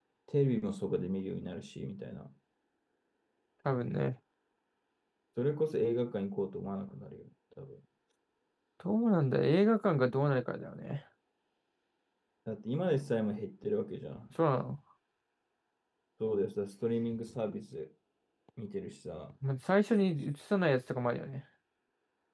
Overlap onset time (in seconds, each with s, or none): none